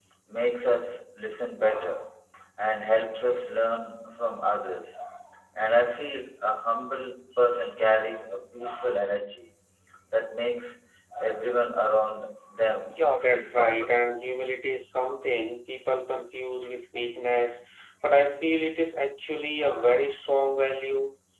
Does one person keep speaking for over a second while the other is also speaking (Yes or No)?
Yes